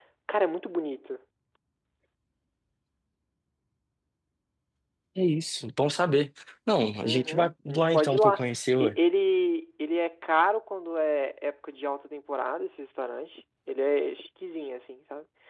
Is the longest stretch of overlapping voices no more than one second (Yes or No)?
No